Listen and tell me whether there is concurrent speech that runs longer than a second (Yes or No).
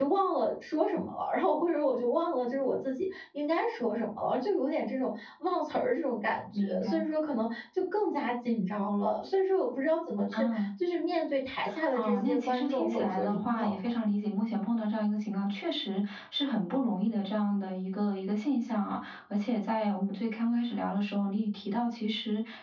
Yes